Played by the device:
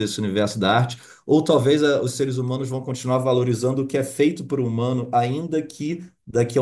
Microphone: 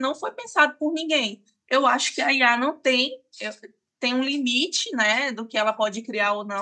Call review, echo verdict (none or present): none